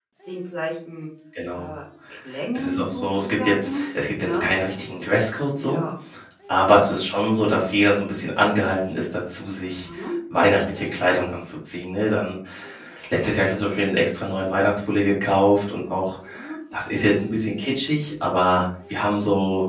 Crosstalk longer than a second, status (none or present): present